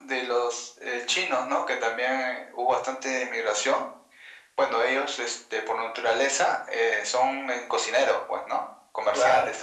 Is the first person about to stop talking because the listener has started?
No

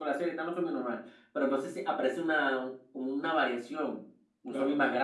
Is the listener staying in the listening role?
Yes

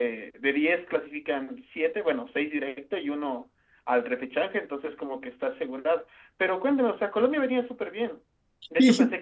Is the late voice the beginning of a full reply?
No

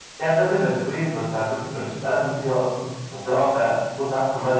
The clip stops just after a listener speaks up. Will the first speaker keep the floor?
Yes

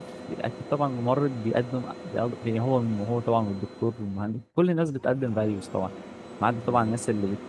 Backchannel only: Yes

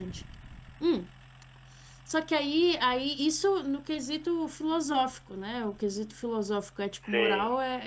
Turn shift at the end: No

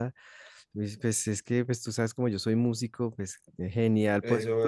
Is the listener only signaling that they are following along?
Yes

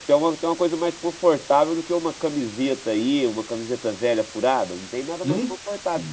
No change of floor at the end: No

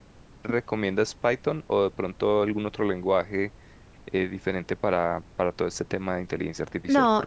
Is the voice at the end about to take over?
Yes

